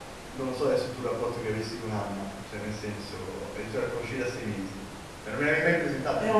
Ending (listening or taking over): listening